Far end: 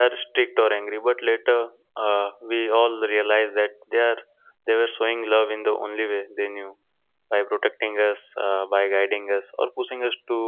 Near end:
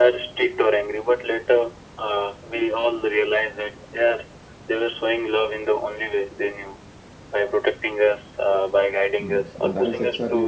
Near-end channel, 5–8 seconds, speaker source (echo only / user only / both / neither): echo only